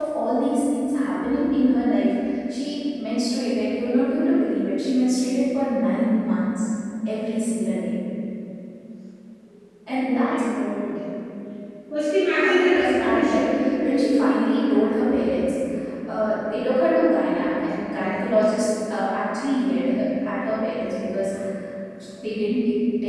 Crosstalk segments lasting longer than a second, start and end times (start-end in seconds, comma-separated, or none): 12.3-13.7